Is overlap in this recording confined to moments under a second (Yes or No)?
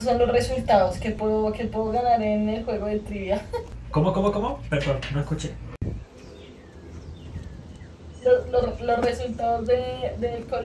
Yes